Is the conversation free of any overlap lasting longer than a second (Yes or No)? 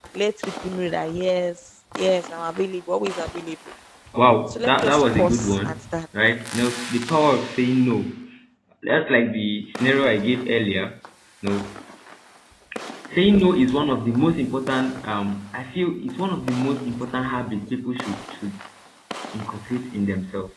No